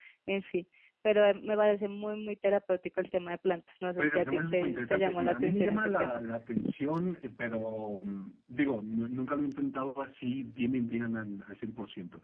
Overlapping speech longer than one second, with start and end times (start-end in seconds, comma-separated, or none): 4.0-6.2